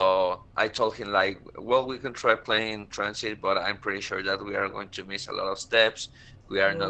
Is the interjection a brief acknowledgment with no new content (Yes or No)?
Yes